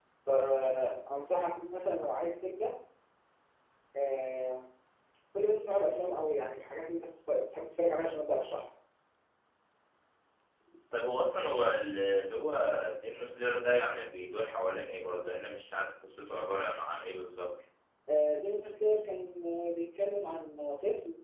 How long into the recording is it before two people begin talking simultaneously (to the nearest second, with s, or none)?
none